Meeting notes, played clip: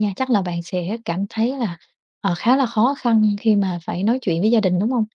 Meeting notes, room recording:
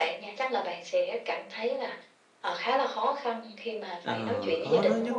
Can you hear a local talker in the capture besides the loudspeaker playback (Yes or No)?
Yes